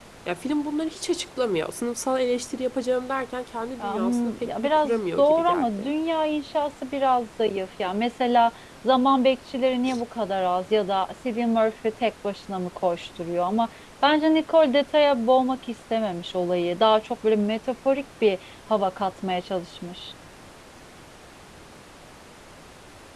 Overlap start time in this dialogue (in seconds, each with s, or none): 3.8 s